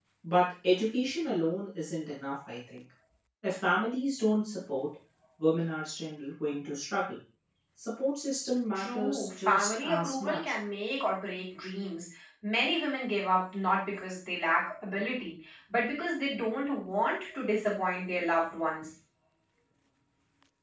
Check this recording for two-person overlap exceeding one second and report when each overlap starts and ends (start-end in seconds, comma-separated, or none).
8.8-10.4